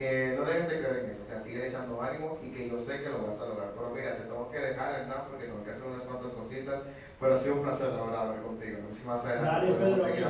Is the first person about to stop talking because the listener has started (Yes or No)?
Yes